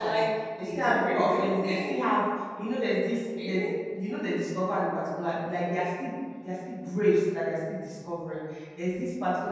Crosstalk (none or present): present